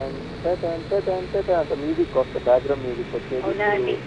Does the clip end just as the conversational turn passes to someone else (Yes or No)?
Yes